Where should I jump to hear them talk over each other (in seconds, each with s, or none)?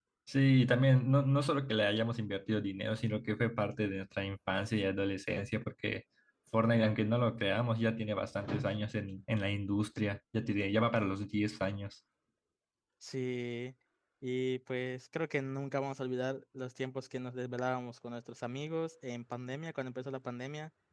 none